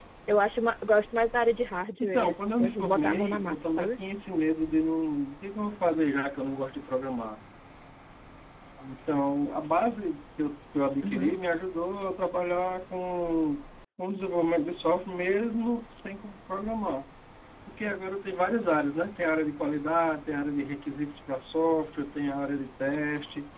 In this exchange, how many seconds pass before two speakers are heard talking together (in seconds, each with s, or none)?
2.0 s